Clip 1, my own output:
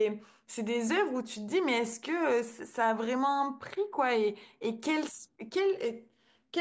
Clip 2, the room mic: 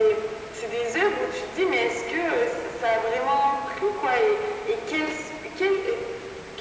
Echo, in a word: present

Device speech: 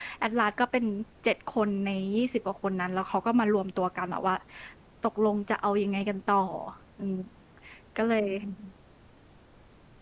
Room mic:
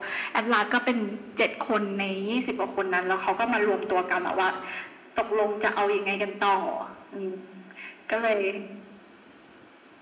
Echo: present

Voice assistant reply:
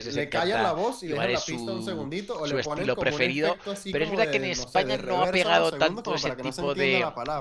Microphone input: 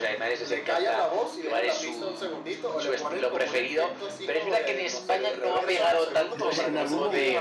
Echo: present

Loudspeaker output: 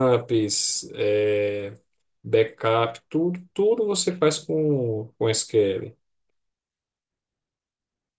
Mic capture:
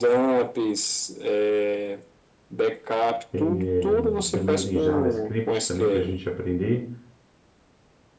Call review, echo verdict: present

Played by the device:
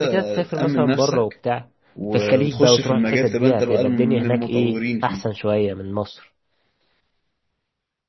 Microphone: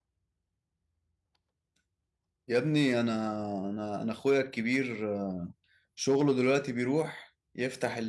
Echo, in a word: none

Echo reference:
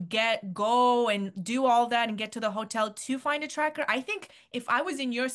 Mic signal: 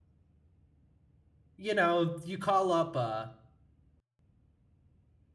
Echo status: none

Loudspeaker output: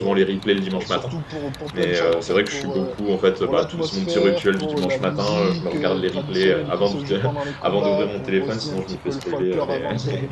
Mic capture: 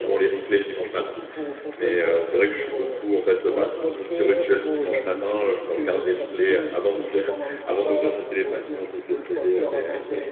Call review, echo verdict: present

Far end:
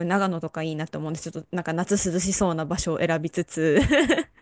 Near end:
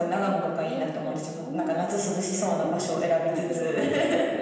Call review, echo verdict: present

